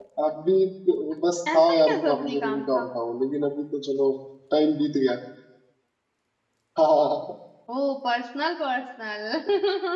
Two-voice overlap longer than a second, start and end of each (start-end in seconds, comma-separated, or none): 1.5-2.9